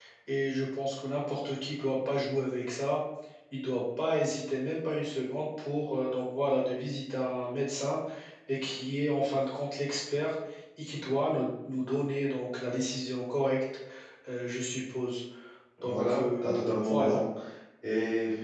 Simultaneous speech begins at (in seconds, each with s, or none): 15.9 s